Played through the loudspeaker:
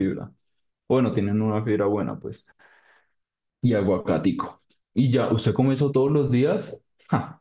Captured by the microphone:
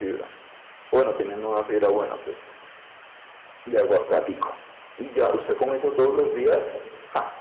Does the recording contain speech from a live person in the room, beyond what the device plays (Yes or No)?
No